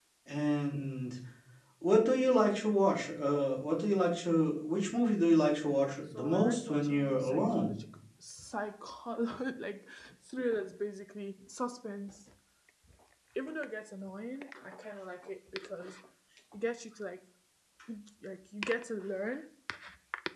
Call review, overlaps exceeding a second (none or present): present